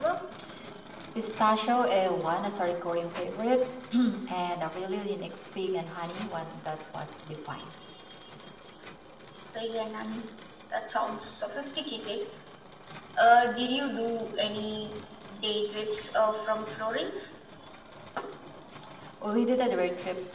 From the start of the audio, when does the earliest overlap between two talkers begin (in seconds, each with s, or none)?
none